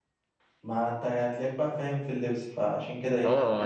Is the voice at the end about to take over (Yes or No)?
Yes